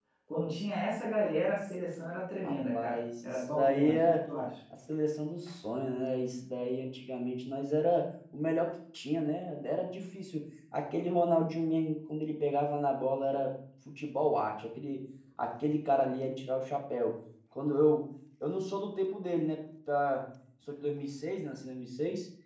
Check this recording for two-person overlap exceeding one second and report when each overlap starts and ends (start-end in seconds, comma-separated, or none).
2.4-4.1